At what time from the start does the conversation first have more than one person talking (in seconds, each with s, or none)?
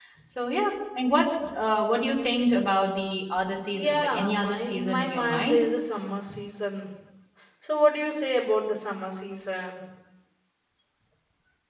3.7 s